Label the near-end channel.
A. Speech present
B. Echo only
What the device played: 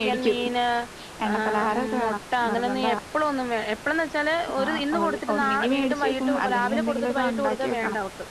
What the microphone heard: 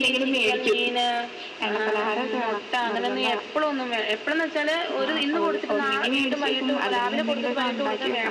B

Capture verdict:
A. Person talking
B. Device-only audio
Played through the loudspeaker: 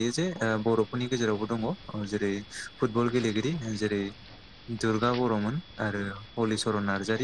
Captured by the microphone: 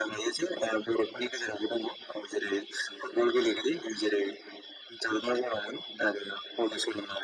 B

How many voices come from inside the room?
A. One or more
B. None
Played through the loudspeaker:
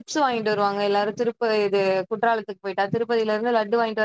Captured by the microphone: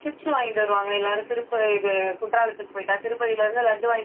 B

